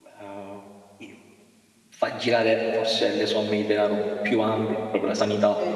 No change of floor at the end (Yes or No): Yes